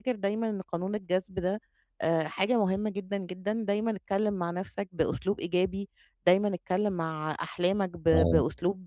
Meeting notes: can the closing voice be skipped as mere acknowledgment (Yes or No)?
Yes